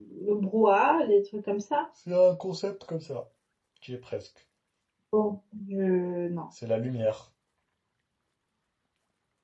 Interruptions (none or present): none